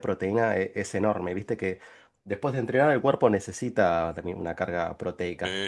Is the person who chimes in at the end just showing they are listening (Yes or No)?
No